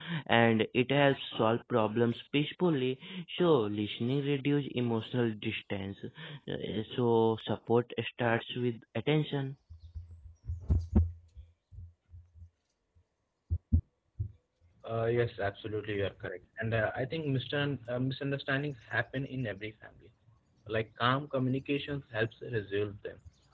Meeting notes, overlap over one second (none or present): none